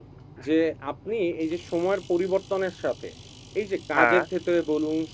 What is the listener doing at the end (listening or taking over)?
listening